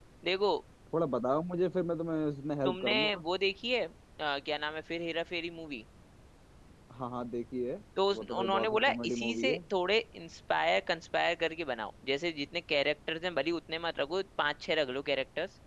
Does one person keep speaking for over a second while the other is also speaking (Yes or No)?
Yes